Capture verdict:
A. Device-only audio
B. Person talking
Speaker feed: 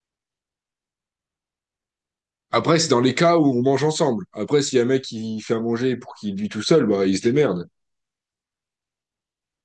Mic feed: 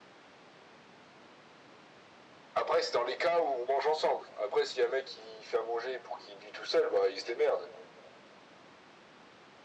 A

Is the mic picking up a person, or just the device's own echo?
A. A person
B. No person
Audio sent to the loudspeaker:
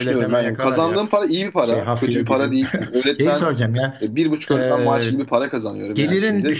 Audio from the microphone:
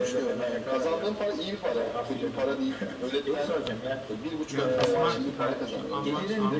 A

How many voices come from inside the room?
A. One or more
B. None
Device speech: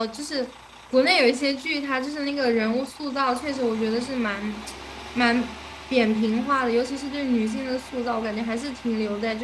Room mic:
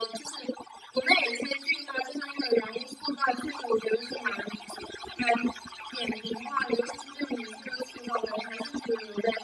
B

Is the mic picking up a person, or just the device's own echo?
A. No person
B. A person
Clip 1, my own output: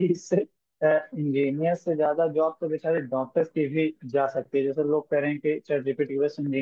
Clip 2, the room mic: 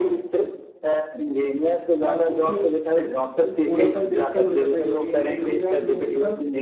B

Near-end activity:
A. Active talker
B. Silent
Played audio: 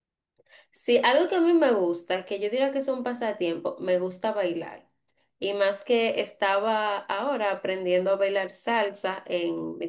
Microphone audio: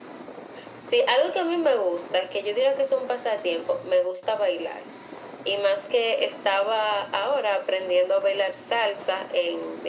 B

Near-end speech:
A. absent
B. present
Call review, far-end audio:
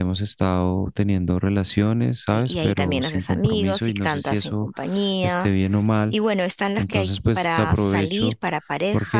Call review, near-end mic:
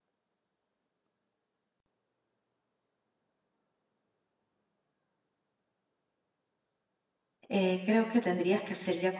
B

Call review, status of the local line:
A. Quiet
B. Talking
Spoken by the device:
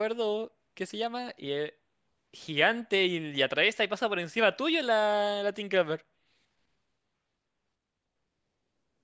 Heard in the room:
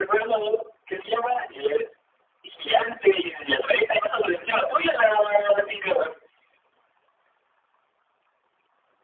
A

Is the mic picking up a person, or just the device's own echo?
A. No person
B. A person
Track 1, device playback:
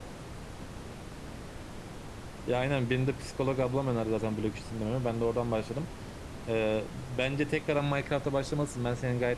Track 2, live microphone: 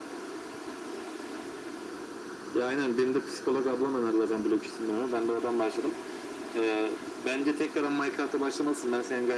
A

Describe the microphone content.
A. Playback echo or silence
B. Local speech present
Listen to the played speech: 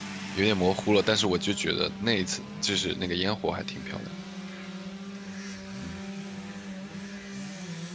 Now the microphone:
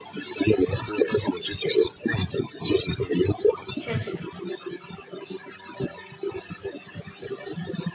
B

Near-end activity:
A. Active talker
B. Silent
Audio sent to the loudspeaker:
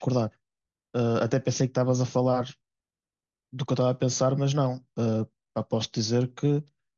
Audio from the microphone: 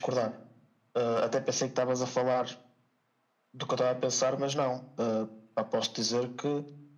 B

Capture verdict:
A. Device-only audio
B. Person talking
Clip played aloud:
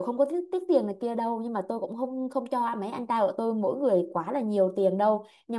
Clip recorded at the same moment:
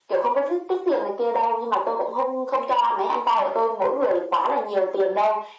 A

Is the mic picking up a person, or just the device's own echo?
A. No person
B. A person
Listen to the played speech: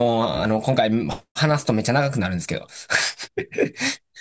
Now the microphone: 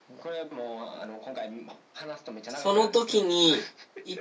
B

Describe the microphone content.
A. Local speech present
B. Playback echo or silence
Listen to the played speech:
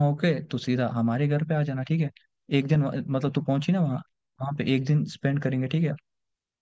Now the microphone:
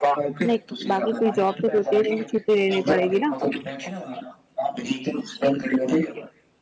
A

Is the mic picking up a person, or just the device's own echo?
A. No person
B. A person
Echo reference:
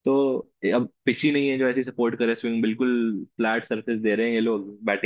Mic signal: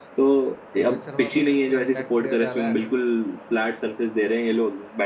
B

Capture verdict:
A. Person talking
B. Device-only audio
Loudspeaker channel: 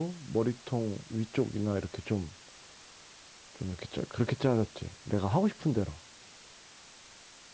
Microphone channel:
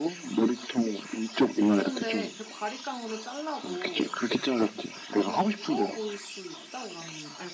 A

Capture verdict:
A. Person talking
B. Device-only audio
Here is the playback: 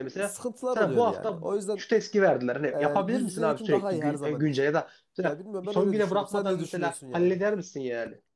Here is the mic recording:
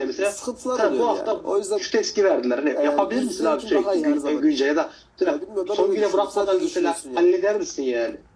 B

